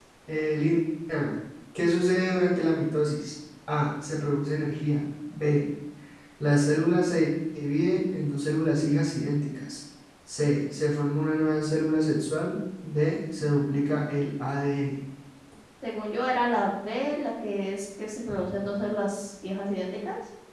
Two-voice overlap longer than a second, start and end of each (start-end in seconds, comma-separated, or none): none